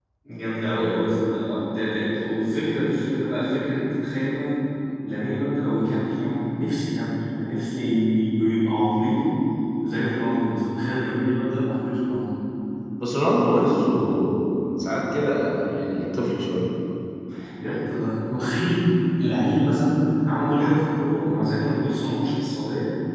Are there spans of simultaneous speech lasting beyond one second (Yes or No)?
No